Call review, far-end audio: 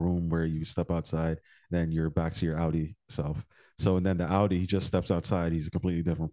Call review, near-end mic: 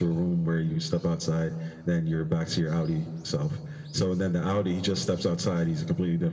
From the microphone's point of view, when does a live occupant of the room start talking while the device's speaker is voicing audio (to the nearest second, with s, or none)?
none